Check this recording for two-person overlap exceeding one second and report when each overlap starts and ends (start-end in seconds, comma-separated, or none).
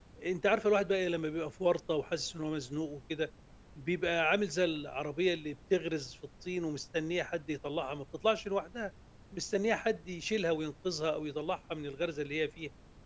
none